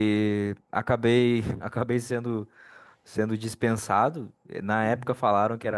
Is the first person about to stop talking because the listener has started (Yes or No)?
No